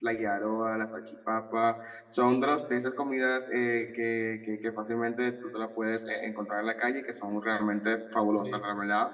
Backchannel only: Yes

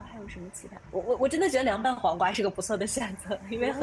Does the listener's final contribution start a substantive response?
Yes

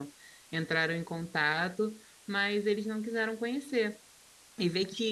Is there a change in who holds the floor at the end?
No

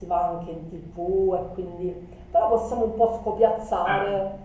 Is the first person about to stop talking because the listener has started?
No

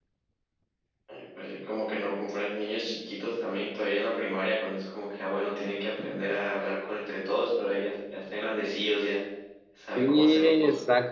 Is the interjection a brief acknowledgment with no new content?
No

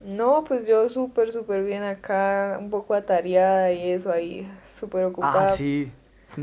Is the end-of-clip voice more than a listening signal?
Yes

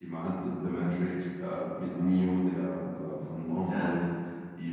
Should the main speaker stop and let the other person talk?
No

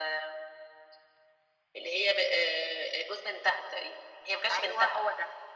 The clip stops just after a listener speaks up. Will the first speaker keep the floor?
No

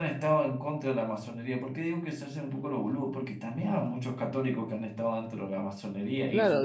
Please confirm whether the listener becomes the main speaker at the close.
Yes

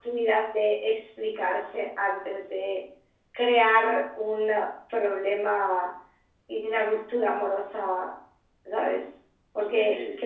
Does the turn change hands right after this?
No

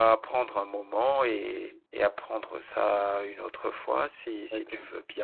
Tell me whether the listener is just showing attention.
No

